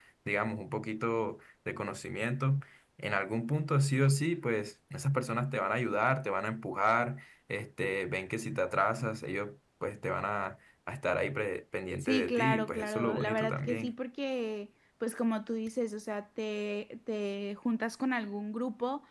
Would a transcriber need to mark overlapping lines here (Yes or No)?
Yes